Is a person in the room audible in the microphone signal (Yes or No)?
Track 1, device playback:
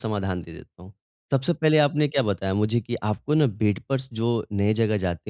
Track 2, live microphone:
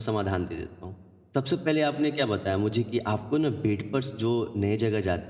No